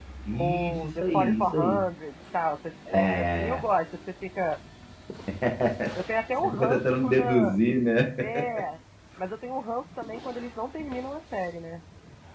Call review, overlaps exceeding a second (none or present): present